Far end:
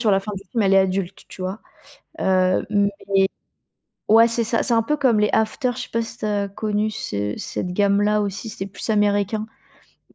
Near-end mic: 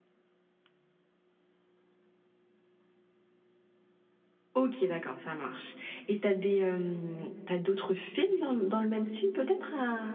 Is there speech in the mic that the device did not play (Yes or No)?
Yes